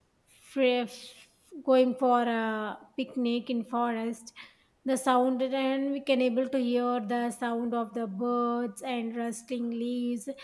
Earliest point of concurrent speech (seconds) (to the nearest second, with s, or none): none